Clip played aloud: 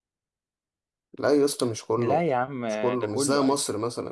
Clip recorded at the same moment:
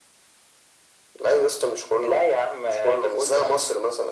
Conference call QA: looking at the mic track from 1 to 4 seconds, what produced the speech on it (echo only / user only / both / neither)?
echo only